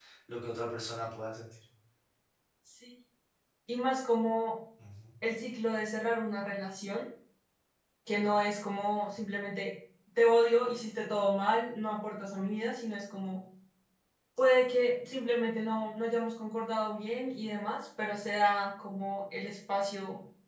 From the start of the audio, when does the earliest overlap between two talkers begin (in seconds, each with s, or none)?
none